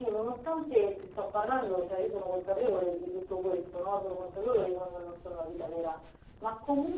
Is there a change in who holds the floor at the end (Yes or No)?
No